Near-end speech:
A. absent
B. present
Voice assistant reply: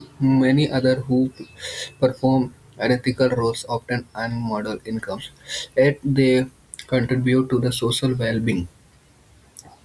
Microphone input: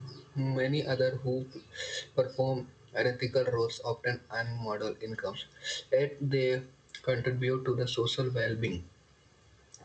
A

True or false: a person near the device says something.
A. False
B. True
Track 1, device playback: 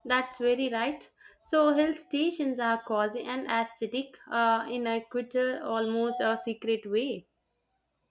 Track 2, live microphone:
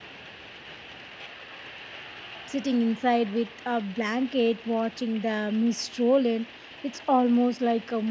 B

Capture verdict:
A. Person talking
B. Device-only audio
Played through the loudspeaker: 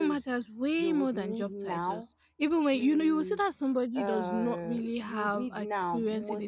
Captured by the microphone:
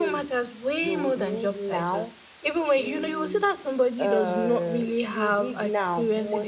B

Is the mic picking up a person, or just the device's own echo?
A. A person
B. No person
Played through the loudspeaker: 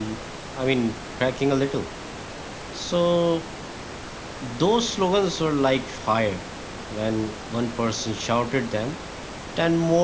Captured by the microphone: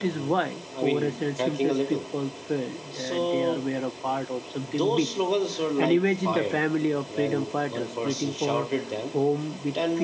A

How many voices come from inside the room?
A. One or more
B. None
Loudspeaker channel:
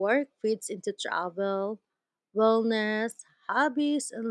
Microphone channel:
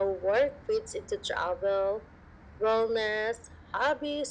B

